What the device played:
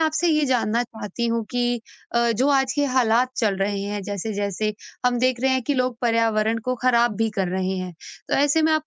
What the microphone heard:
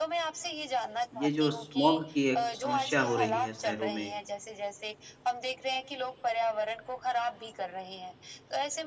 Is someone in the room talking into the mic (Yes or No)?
Yes